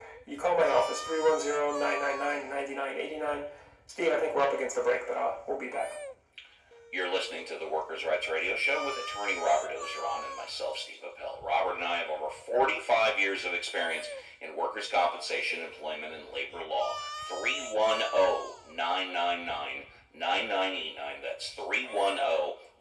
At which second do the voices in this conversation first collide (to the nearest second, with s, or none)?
none